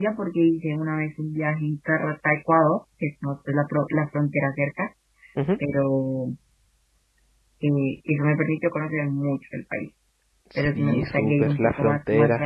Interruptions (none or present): present